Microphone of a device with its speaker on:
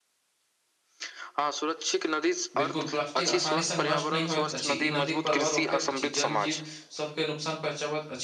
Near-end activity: present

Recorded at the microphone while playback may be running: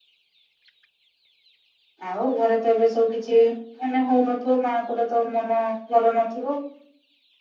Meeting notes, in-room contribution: none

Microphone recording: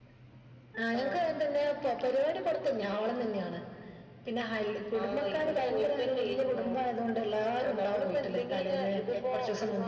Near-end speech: none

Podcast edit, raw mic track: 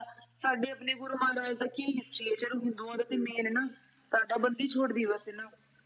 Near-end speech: none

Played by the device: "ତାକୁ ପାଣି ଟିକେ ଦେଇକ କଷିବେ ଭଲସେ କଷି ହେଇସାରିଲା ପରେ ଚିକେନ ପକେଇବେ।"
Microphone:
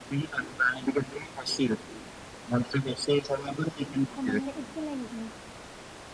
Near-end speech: present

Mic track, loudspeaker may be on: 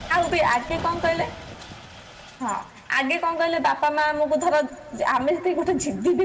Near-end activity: present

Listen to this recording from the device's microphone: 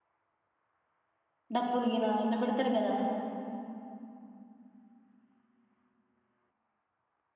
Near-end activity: present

